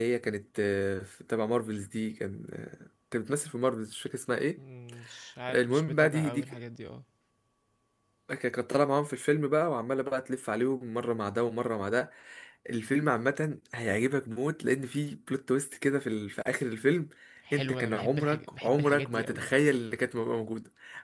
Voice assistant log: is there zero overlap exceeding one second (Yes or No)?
No